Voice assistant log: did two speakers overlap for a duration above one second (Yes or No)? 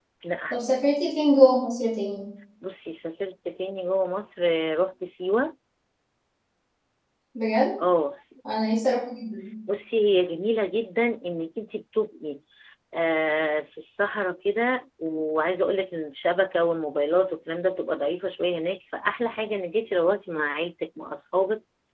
No